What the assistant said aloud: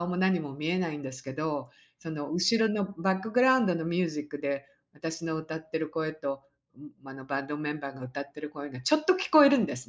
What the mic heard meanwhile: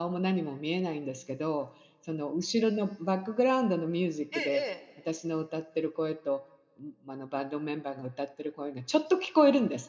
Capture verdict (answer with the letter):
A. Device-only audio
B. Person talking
B